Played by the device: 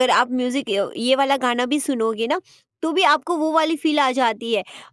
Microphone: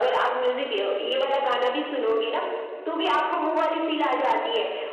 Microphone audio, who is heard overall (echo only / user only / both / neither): echo only